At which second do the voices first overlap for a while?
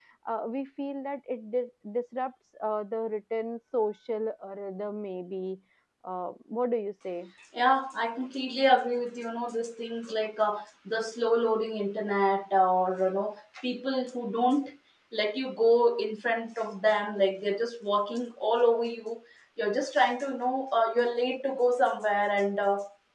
none

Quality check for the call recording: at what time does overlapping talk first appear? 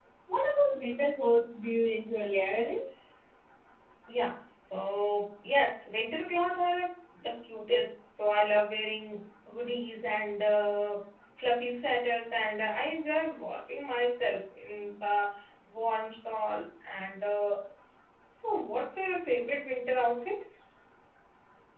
none

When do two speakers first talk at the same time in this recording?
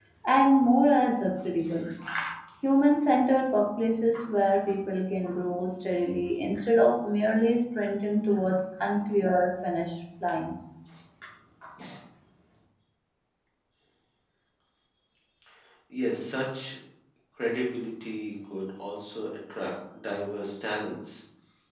none

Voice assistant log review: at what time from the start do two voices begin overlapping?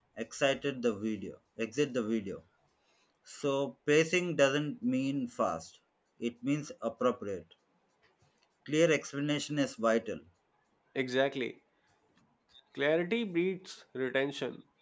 none

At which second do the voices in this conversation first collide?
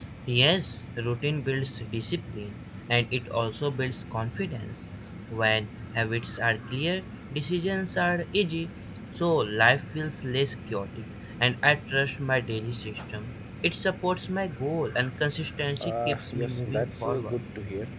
15.8 s

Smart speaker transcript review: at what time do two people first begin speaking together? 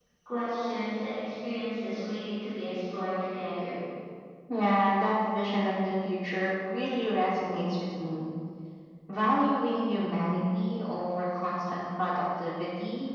none

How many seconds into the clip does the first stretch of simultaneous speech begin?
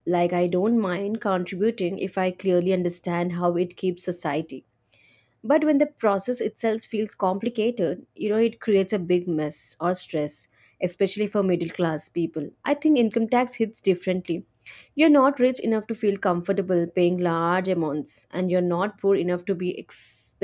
none

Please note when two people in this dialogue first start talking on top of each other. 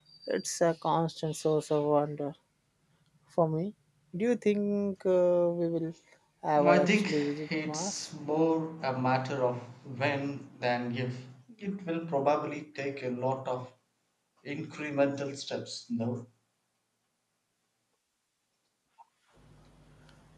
6.7 s

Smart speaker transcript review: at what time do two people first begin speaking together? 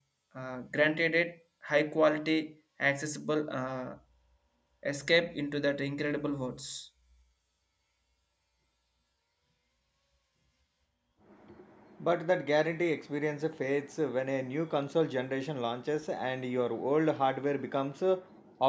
none

